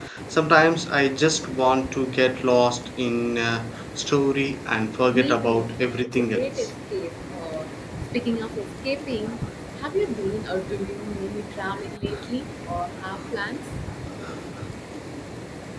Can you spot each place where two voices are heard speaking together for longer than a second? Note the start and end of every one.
5.1-6.7

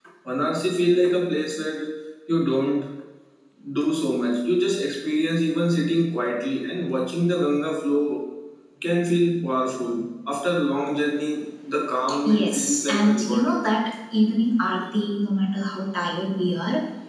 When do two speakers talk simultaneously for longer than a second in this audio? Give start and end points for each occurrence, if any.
12.2-13.5

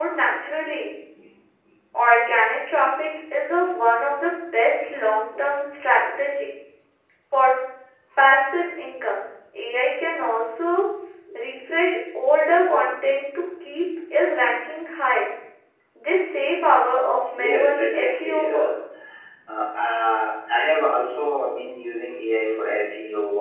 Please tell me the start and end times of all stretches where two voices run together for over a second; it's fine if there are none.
17.3-18.7

